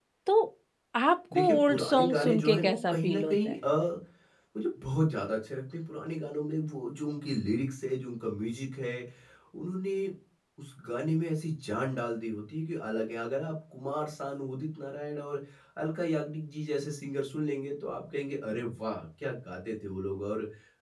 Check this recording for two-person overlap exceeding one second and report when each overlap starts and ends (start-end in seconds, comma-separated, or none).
1.3-3.6